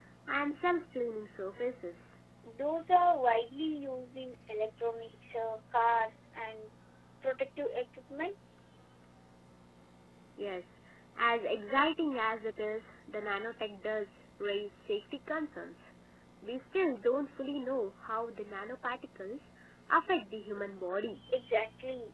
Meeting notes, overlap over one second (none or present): none